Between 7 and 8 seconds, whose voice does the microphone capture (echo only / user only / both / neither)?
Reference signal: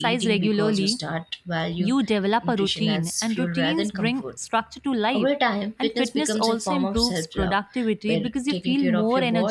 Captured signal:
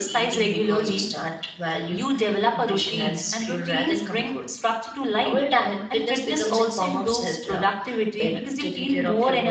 echo only